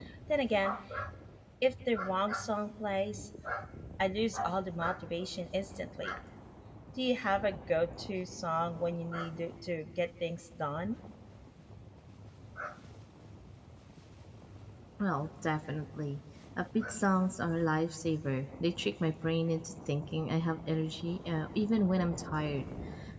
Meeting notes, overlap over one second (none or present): none